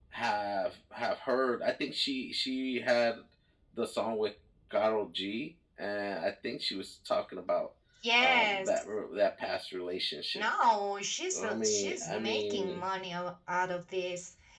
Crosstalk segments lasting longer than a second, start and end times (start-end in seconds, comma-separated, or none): 11.4-12.8